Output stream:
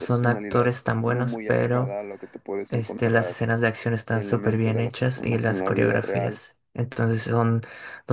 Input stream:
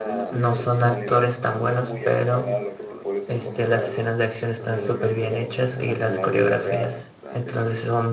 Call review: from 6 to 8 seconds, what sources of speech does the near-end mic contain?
both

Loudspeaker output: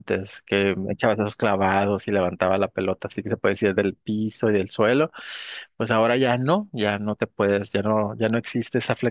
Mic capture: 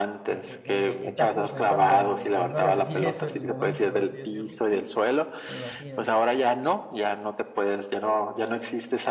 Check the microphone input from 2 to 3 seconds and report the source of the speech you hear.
both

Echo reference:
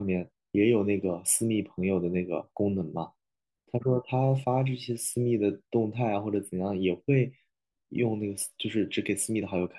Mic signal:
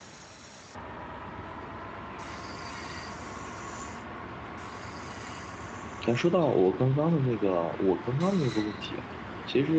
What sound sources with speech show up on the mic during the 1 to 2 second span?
neither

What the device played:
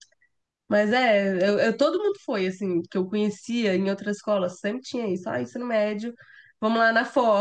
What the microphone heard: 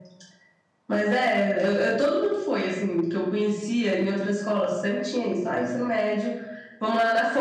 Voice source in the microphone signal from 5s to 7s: echo only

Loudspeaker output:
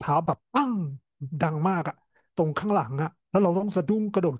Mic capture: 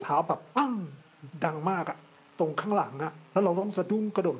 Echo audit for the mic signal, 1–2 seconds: echo only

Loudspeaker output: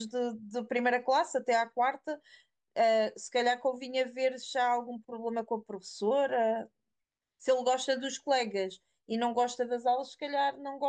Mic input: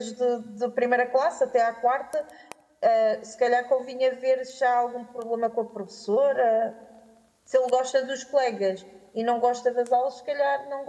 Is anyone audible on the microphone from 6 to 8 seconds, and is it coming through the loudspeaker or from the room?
echo only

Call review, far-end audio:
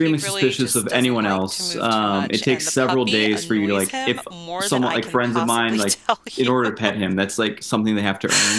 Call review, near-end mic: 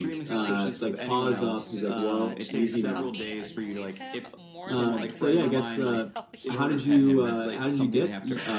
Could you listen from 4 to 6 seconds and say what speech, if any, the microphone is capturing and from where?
both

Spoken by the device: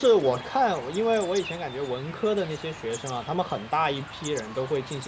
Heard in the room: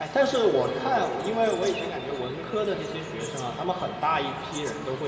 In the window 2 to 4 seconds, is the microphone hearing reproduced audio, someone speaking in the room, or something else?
echo only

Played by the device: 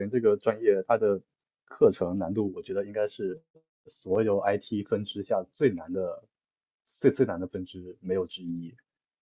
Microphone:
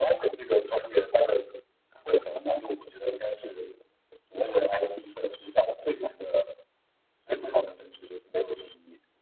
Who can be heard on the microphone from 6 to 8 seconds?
echo only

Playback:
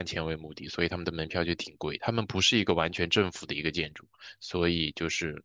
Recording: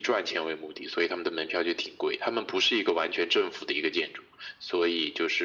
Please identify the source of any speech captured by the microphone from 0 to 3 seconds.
echo only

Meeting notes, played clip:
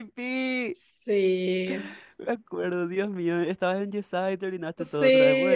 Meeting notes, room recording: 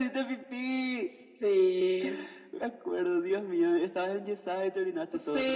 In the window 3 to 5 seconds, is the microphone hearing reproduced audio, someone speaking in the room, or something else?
echo only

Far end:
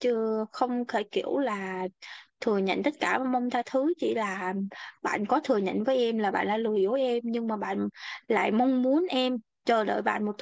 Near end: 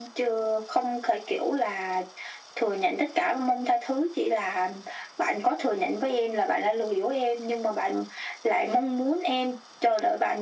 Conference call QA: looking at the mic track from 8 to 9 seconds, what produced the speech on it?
echo only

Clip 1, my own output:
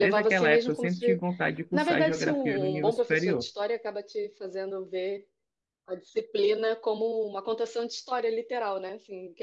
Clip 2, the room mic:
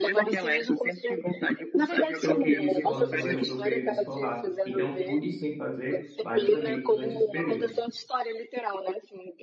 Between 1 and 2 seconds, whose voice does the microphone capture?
echo only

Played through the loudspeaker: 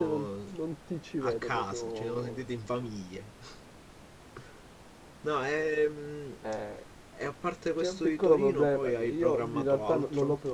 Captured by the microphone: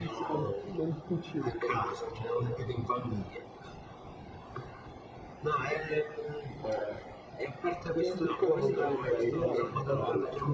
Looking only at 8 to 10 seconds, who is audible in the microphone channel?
both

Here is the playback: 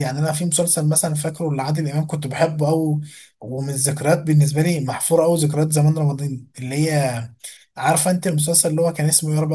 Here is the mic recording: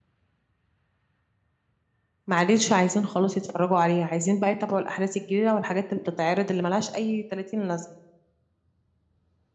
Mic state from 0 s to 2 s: neither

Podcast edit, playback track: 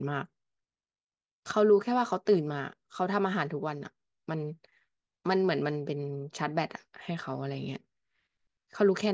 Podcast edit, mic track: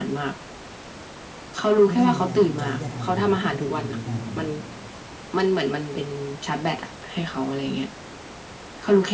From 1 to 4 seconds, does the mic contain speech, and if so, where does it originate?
both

